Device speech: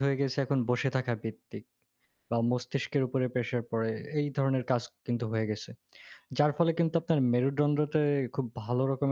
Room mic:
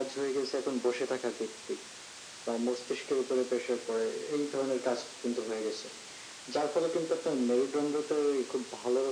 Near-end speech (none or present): none